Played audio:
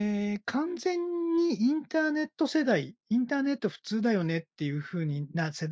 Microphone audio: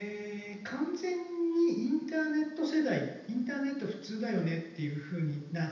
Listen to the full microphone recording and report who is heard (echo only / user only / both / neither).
echo only